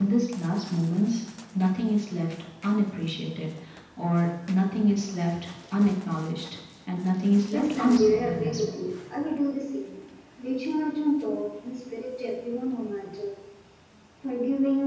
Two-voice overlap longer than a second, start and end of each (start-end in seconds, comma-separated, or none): 7.5-8.8